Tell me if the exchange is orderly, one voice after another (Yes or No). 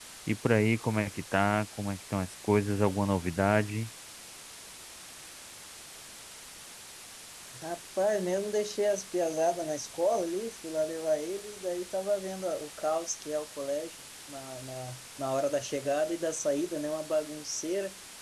Yes